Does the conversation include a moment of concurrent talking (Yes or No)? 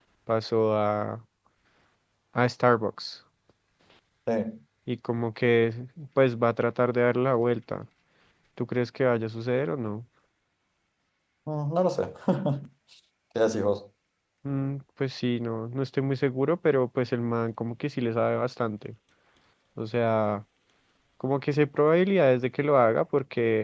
No